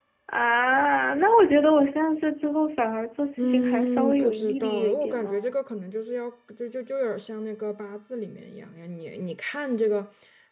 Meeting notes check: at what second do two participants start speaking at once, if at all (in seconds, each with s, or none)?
3.4 s